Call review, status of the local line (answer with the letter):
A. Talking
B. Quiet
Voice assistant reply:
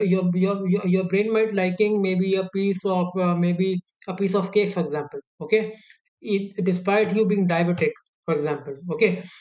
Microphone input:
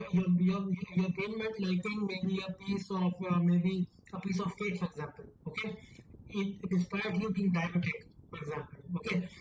B